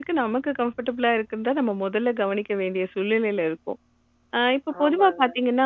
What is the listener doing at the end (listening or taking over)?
listening